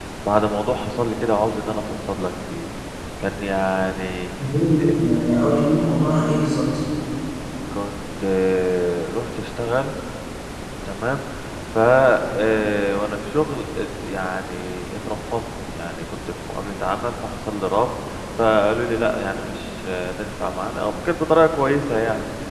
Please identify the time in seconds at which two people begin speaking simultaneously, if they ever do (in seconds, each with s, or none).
none